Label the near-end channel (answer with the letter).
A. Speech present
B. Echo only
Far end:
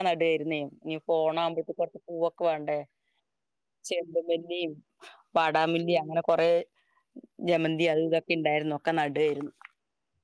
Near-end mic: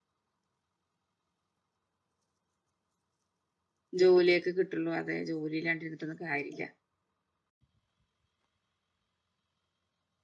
A